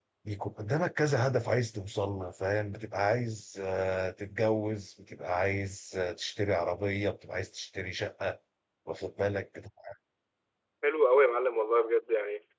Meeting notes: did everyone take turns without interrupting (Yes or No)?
Yes